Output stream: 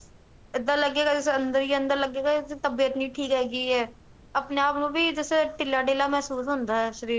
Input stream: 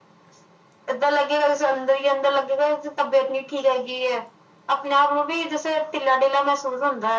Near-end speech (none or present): none